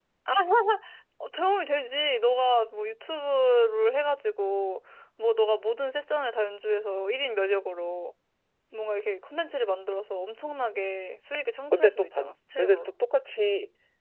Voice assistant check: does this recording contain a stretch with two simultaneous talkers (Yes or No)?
Yes